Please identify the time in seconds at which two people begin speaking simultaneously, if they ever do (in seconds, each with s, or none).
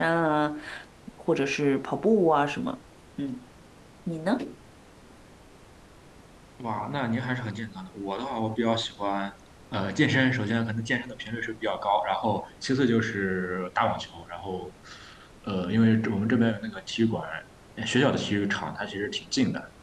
none